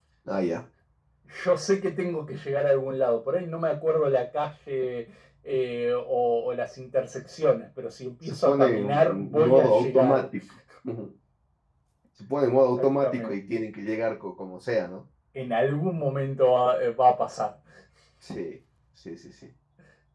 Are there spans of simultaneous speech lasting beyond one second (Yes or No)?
Yes